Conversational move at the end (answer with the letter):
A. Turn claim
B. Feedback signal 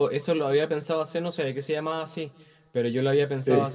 B